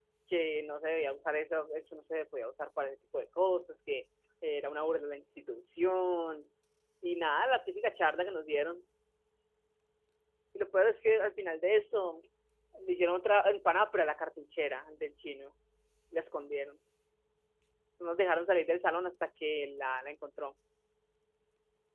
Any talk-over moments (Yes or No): No